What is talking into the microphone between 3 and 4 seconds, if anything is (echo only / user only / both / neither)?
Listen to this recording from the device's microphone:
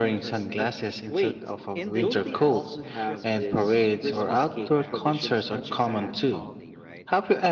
both